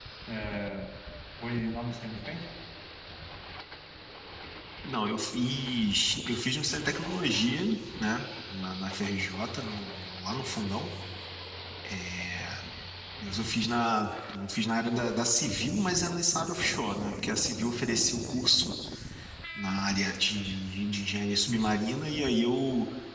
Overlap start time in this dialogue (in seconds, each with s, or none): none